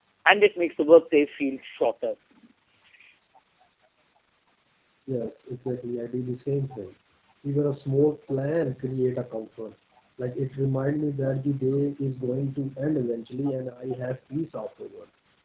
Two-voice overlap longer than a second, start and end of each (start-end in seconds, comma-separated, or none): none